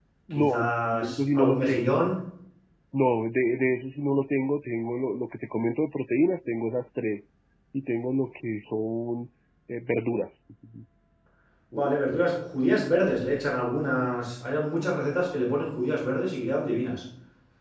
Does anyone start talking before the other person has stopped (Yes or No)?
Yes